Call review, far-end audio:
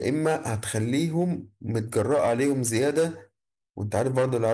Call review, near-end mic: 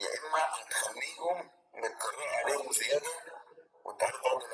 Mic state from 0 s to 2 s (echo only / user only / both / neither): echo only